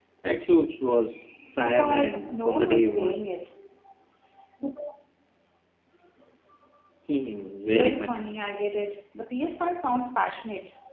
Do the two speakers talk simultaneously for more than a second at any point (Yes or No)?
Yes